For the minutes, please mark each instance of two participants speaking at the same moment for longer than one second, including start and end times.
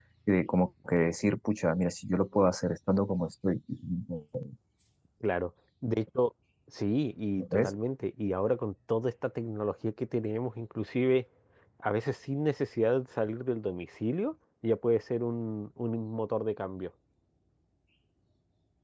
none

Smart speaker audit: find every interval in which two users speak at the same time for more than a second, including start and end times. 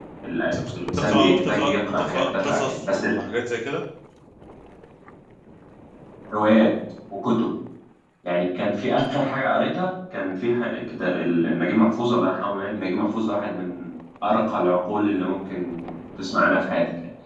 0.8-3.0

